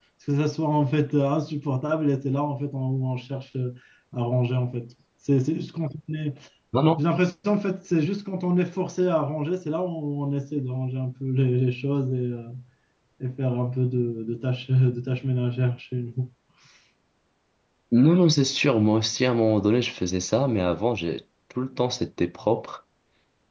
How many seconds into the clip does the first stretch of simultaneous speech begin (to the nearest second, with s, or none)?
none